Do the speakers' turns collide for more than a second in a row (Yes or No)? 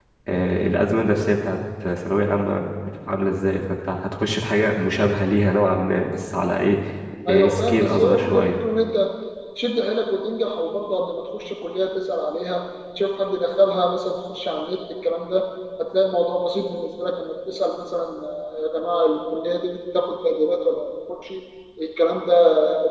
Yes